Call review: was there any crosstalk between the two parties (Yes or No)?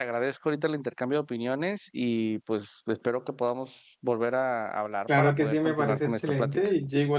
Yes